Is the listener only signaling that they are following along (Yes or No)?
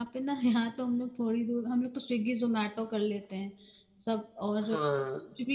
Yes